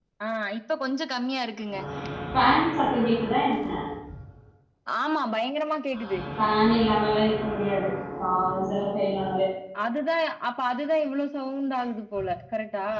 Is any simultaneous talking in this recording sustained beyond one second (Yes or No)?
No